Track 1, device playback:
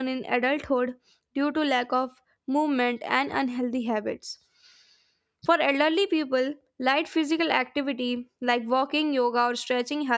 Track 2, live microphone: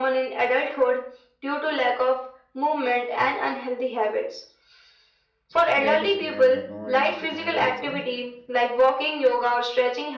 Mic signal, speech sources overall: both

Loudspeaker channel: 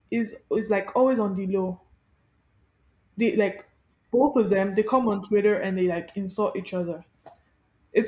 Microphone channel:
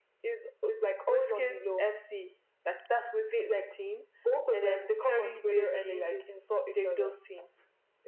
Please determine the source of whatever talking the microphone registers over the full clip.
both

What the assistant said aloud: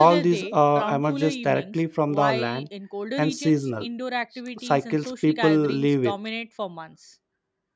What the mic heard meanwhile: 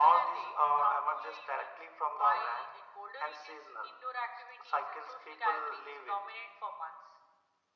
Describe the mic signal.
echo only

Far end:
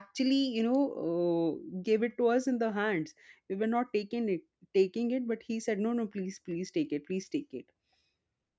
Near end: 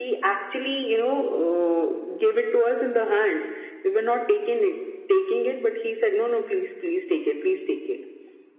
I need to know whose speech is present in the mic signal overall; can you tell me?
echo only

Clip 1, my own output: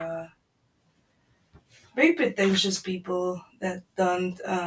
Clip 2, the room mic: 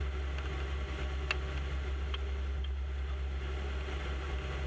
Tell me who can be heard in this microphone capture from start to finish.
neither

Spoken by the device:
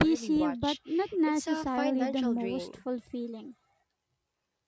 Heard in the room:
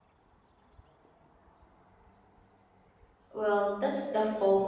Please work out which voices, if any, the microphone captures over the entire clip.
user only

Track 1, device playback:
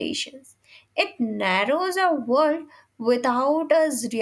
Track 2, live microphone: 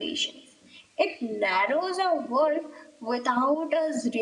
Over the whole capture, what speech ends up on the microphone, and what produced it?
echo only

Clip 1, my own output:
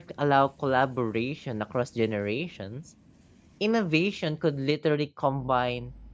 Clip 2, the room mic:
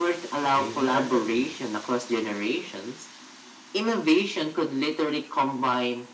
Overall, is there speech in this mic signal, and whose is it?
both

